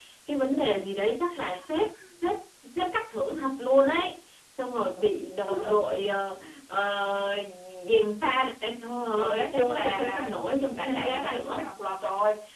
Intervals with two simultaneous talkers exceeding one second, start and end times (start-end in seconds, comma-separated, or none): 9.2-11.7